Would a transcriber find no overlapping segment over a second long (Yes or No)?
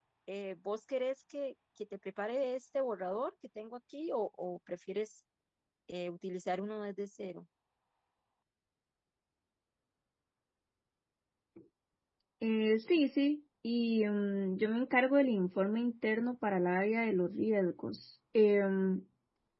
Yes